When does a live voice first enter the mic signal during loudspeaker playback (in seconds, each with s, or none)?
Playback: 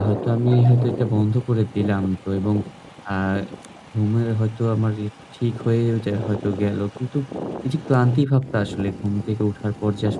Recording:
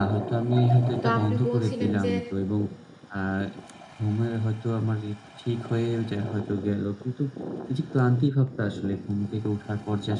1.0 s